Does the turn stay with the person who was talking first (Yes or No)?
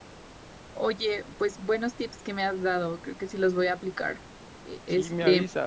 No